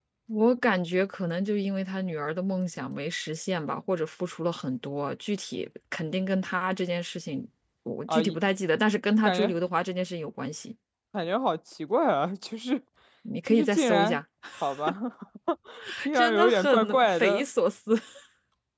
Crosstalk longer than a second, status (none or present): present